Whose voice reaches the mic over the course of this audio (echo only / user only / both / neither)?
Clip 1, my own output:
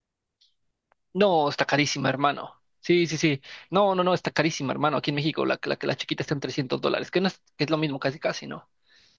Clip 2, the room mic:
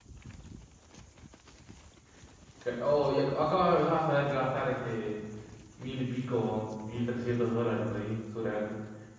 user only